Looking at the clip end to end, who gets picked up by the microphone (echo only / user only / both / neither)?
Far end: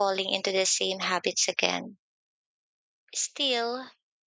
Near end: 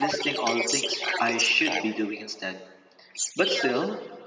both